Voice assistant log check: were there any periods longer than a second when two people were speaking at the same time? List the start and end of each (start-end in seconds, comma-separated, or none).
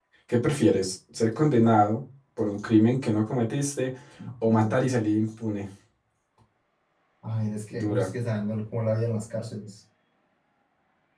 none